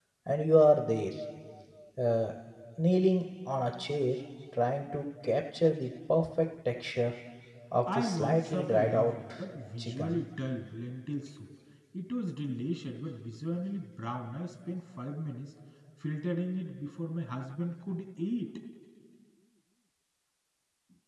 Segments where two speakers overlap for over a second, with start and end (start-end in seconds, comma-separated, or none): 7.9-9.2